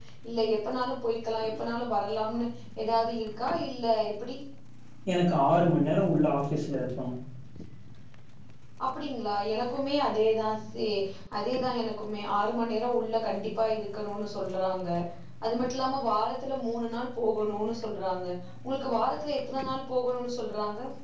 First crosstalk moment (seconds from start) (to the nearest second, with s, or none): none